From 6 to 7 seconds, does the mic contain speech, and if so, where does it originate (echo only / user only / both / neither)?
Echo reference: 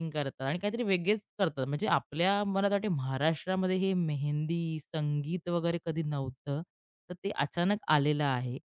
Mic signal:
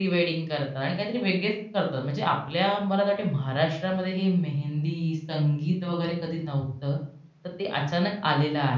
echo only